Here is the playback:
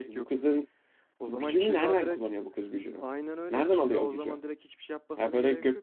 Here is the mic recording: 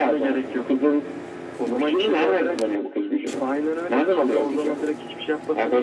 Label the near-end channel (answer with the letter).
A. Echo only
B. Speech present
A